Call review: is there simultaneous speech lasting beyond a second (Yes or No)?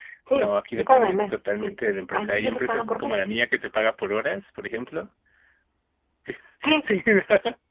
Yes